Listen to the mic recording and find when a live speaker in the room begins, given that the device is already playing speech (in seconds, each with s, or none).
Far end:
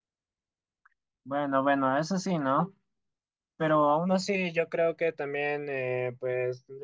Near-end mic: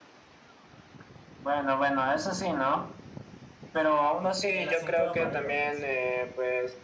4.5 s